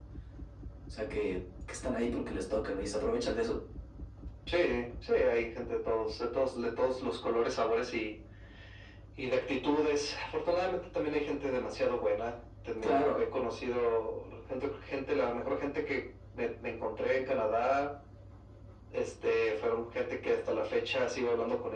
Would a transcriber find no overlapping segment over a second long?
Yes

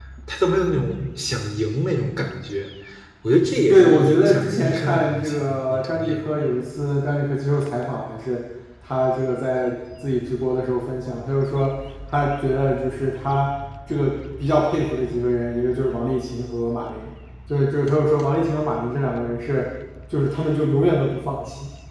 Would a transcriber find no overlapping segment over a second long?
No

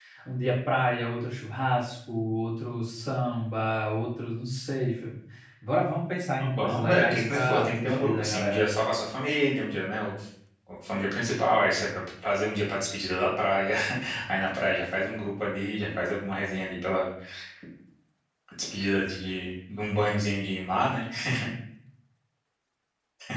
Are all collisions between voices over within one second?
No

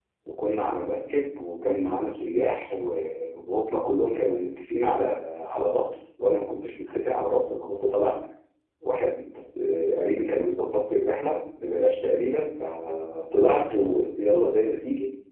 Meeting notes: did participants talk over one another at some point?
No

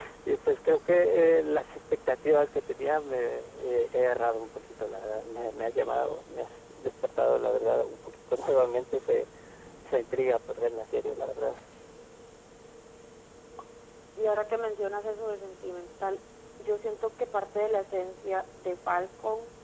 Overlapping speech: No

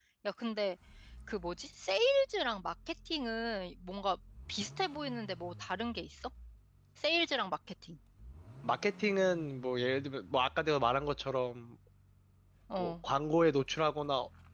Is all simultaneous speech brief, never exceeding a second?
Yes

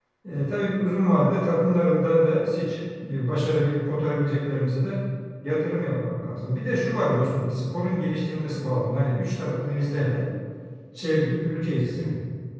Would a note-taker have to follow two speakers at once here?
No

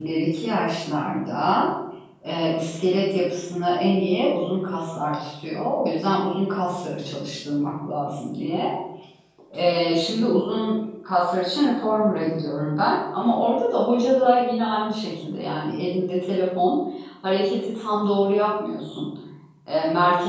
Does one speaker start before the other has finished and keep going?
No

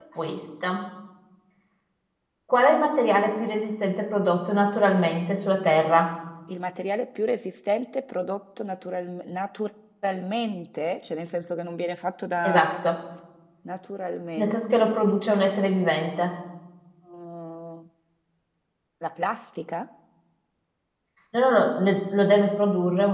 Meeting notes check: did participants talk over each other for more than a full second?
No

